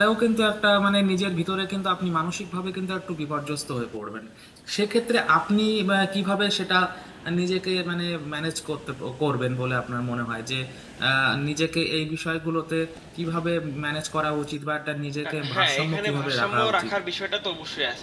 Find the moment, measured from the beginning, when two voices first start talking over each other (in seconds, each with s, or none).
15.2 s